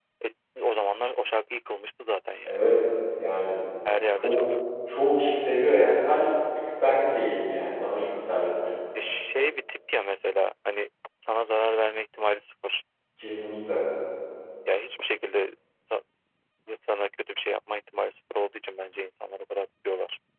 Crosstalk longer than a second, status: none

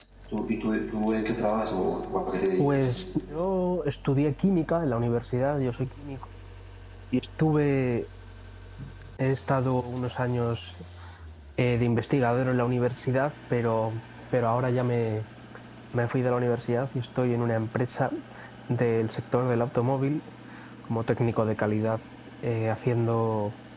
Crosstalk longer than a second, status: none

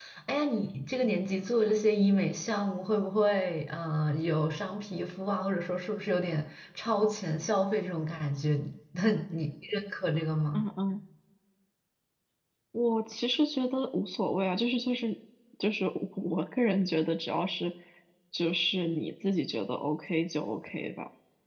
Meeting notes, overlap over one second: none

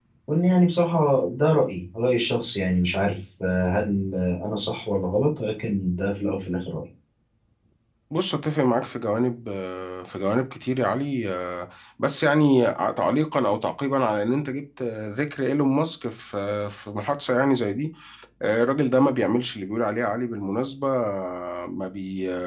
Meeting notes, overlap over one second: none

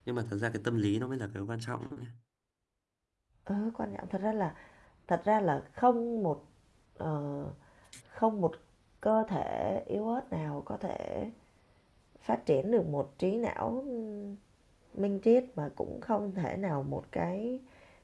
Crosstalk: none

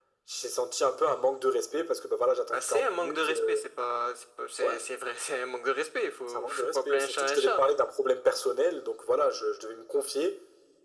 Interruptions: present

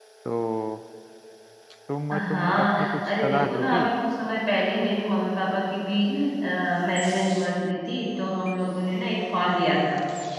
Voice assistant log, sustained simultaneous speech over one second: present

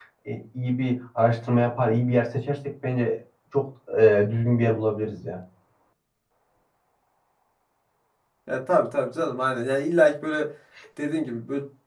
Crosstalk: none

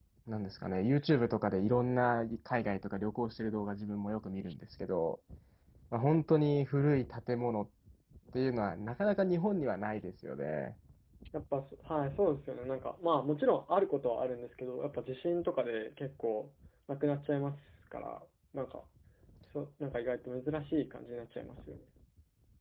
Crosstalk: none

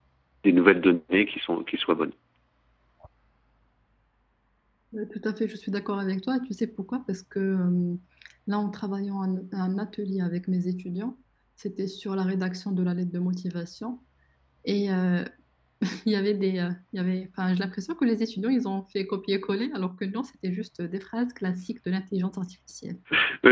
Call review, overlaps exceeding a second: none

